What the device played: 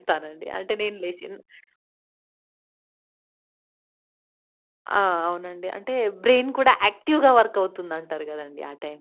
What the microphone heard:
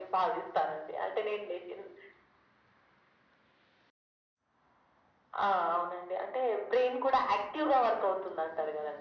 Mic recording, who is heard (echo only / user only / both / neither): echo only